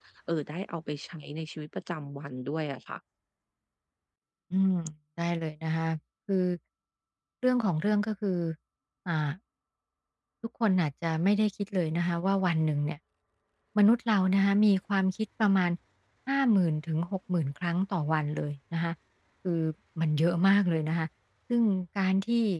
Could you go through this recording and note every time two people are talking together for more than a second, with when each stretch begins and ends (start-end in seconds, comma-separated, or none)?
none